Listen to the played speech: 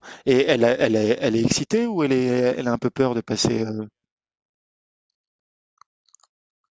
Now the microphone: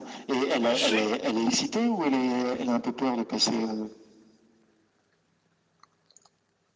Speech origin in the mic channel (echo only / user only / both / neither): both